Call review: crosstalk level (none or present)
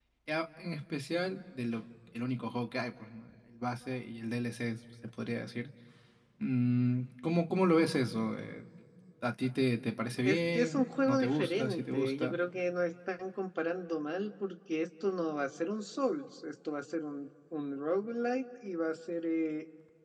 present